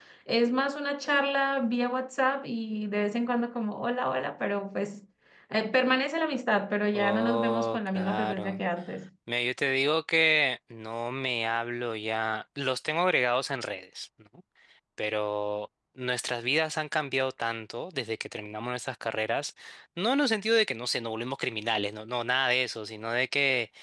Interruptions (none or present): present